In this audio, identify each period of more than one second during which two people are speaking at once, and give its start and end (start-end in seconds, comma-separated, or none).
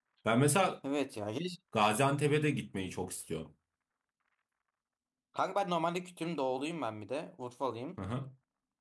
none